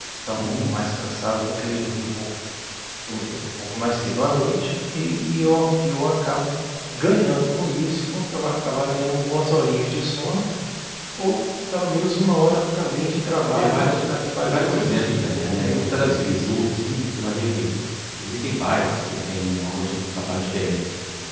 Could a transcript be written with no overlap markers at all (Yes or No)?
No